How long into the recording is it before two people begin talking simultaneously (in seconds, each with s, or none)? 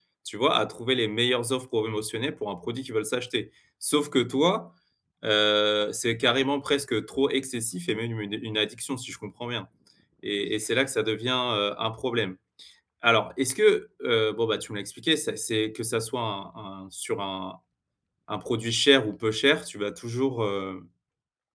none